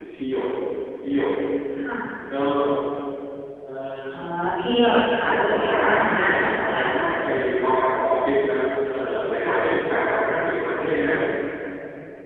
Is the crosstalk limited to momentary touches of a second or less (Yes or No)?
No